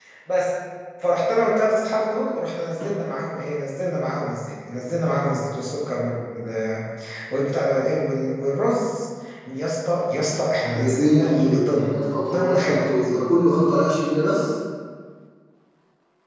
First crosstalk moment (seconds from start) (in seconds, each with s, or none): 10.7 s